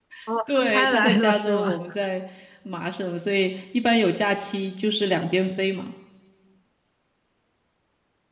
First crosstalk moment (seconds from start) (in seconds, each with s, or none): 0.6 s